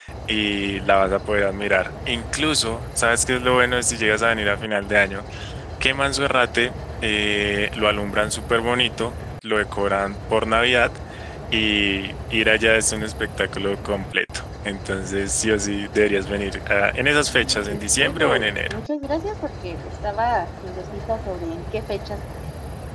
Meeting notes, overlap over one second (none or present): present